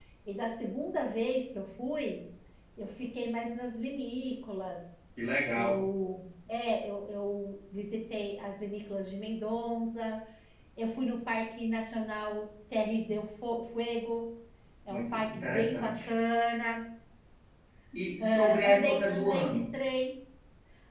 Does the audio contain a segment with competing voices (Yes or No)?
Yes